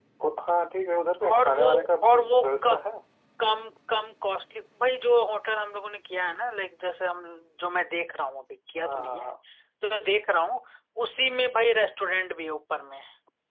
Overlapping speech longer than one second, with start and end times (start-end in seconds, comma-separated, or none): 1.3-2.7